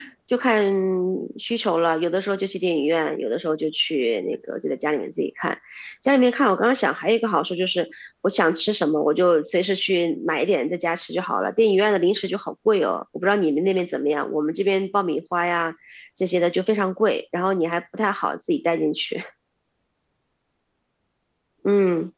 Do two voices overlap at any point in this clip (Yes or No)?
No